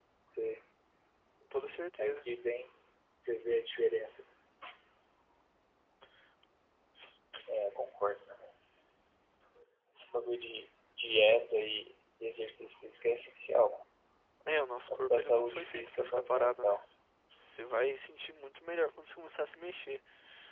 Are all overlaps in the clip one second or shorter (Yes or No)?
No